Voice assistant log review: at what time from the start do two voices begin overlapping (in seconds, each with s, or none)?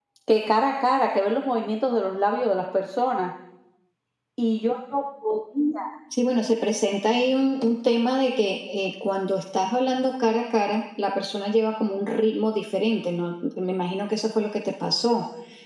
none